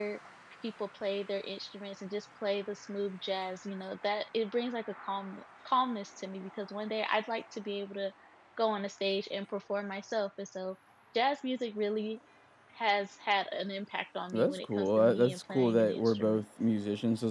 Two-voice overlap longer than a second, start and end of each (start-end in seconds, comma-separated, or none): 14.3-16.4